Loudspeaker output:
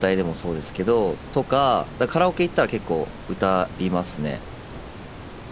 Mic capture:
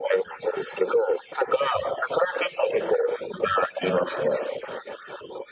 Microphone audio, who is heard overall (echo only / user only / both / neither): echo only